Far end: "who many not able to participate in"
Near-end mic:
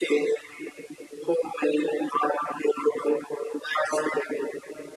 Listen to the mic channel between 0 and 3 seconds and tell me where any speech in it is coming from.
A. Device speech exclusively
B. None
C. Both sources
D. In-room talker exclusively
A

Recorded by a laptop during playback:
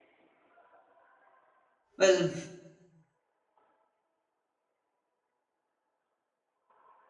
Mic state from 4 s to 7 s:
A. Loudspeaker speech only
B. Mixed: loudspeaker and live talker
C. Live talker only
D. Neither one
D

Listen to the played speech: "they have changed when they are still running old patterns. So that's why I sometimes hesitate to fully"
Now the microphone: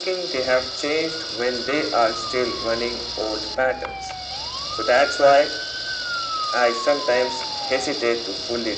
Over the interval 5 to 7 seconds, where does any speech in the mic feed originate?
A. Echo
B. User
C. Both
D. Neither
A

